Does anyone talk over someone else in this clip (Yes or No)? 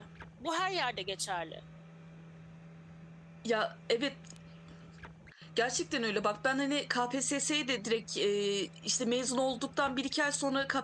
No